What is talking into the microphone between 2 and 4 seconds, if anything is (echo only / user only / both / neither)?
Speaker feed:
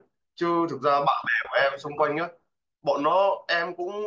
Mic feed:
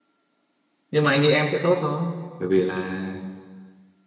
user only